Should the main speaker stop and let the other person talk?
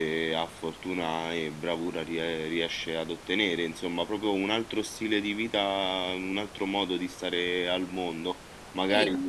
No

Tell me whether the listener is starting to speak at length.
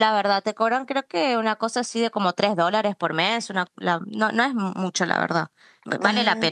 Yes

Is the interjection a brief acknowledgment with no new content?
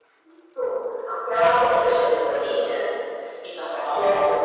Yes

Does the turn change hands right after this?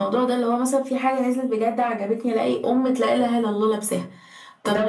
Yes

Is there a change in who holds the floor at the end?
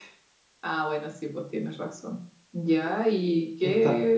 No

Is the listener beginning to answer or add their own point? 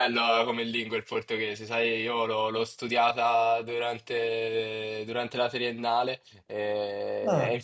No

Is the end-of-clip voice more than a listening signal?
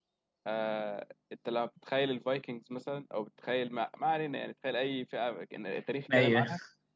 No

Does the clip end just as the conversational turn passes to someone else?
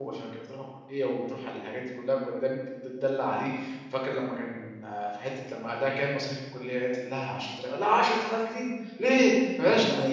Yes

